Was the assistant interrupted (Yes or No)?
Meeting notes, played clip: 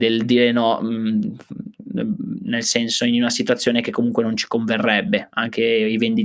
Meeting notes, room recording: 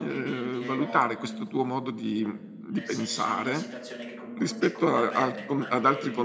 Yes